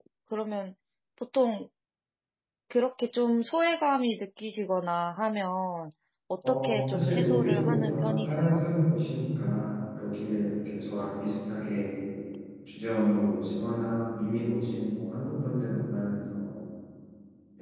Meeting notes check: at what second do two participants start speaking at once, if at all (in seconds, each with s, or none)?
6.5 s